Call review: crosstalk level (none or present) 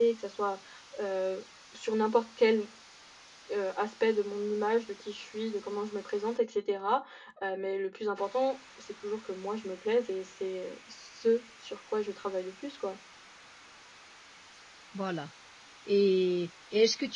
none